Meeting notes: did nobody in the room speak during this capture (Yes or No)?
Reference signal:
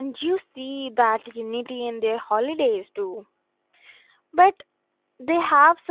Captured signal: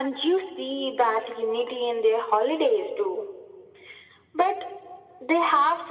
Yes